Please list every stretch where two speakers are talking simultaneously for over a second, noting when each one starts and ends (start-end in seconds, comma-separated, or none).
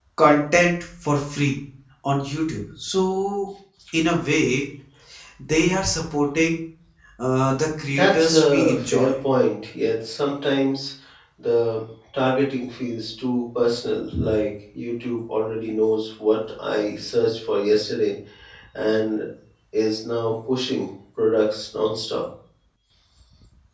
7.9-9.1